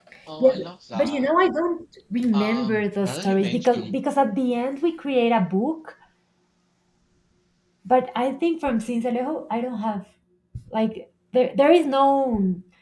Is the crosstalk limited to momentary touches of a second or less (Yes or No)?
No